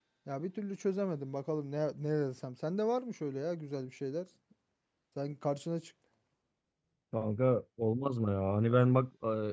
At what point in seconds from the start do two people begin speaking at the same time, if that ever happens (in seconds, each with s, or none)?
none